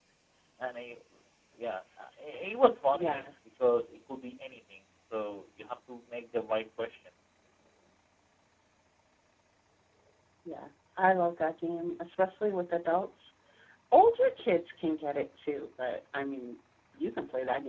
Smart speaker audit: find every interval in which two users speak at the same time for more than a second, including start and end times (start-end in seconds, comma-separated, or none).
none